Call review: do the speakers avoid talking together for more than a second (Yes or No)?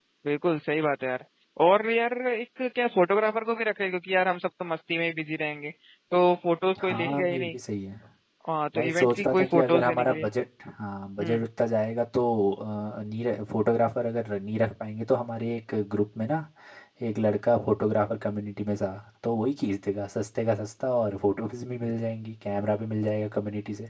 No